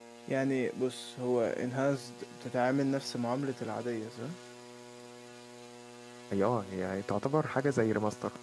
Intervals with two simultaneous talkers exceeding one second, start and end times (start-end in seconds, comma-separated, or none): none